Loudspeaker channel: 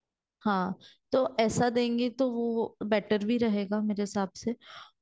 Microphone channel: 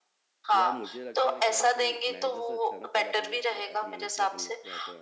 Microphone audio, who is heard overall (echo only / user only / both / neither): both